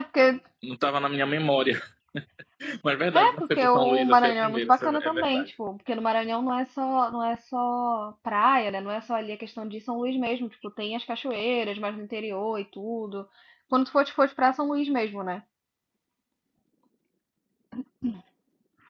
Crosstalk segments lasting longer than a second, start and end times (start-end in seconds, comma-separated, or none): 3.1-5.5